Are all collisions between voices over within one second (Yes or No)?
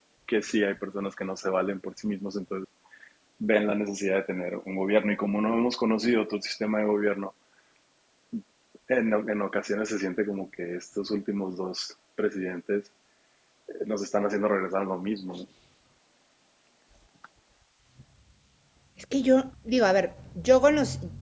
Yes